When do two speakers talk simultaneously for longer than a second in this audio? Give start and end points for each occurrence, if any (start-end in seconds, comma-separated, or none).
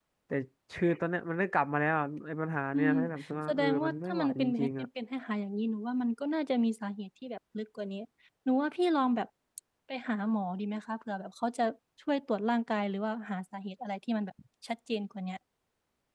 3.5-4.8